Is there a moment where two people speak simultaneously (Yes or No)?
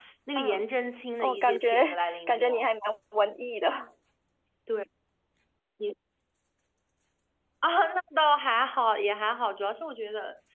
Yes